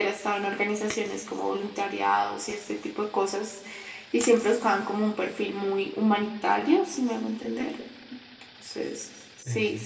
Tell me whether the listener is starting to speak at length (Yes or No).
No